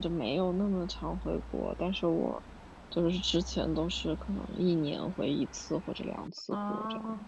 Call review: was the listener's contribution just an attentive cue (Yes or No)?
No